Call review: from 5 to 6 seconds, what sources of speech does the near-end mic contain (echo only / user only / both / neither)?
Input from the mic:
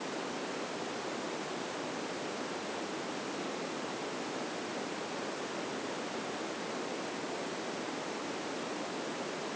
neither